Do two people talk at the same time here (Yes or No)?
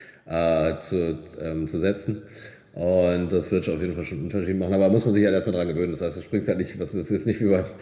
No